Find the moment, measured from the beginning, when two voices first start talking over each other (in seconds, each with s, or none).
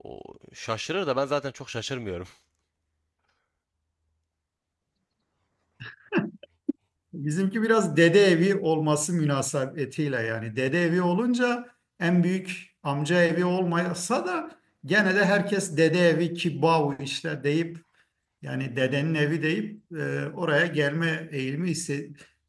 none